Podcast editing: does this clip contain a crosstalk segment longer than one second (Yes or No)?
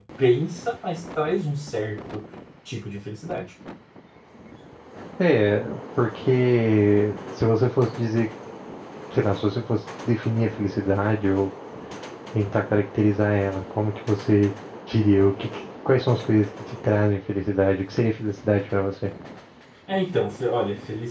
No